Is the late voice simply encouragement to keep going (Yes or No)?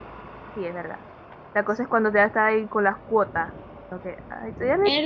No